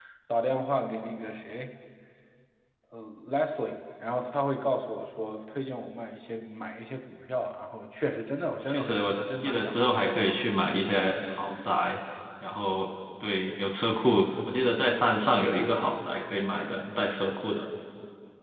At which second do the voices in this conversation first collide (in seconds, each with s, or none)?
8.7 s